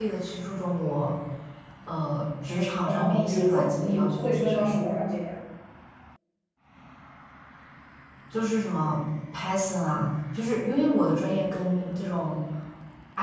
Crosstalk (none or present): present